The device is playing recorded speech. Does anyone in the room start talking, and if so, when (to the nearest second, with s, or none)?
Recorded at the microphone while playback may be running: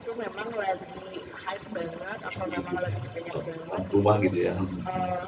2 s